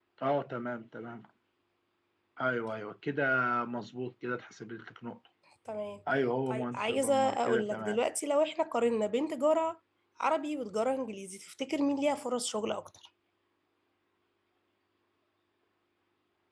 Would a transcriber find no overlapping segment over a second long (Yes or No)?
No